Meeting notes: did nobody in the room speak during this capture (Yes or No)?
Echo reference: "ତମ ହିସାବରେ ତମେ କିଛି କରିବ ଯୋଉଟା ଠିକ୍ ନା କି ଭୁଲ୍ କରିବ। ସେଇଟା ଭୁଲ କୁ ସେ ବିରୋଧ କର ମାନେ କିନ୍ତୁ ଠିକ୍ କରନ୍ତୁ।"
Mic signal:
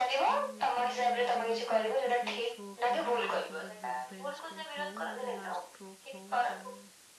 No